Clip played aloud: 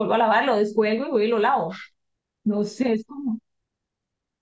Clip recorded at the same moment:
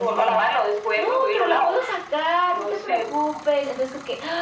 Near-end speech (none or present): present